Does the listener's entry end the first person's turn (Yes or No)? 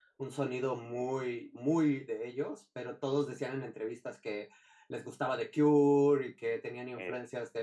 No